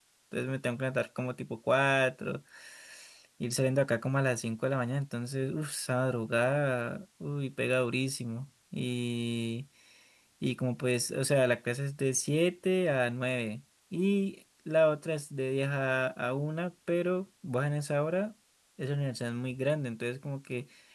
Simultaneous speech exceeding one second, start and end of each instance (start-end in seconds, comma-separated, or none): none